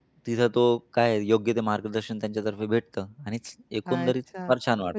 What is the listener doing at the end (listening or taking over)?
taking over